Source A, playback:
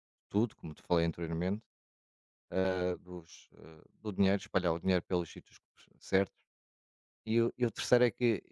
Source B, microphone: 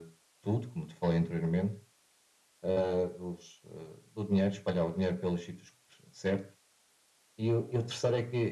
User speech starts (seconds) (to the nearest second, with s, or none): none